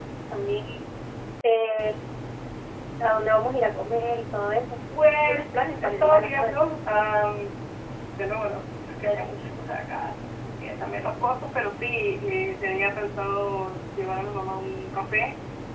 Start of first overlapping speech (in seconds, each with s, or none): 5.2 s